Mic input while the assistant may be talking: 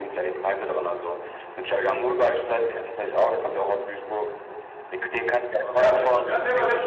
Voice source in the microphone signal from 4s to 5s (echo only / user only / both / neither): echo only